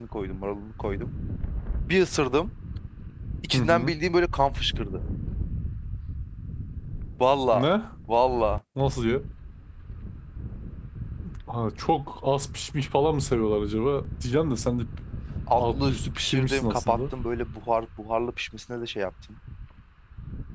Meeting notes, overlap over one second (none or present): present